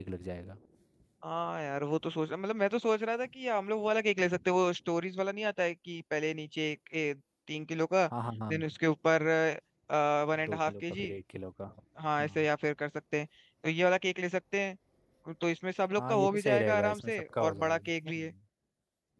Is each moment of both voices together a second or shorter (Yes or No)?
No